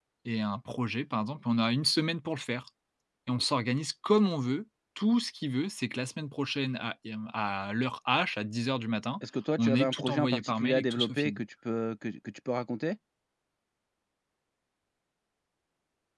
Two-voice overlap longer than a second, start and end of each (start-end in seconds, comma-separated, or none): 9.6-11.4